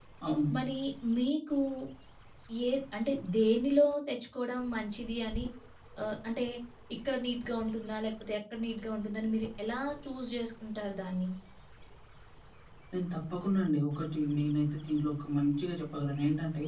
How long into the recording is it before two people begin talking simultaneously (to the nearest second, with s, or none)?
none